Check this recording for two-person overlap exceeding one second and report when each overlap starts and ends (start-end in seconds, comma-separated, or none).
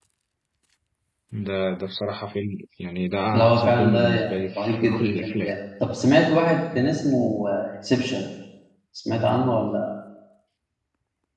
3.3-5.6